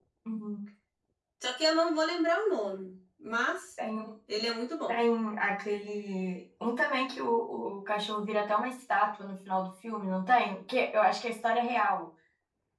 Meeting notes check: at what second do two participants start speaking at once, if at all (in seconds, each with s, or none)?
none